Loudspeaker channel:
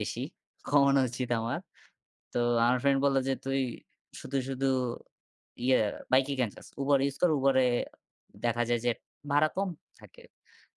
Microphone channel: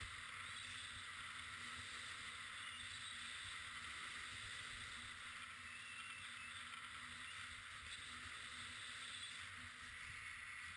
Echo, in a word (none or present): none